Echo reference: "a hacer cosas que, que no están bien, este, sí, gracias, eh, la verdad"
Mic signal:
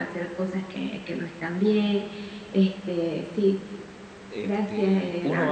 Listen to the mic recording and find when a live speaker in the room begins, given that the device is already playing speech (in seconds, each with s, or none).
4.3 s